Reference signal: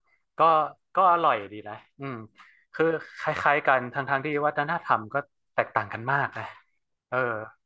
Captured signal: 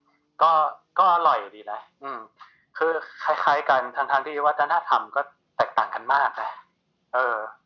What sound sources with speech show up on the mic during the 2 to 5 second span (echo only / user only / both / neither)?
echo only